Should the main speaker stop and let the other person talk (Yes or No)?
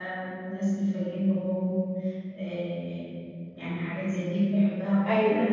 No